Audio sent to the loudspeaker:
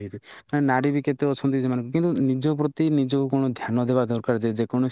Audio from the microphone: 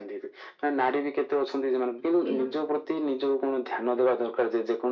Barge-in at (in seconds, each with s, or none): 2.1 s